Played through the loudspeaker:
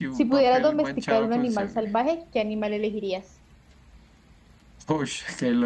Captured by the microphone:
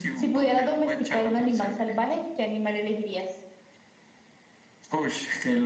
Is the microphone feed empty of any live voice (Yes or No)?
Yes